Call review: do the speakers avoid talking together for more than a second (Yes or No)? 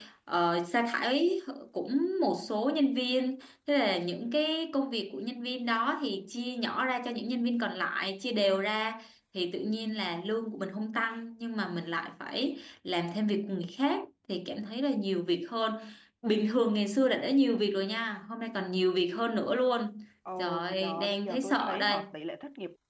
No